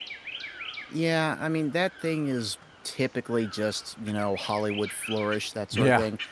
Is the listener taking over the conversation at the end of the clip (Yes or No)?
No